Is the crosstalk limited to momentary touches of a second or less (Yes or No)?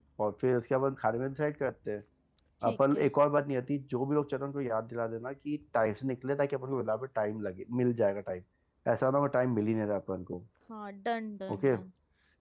Yes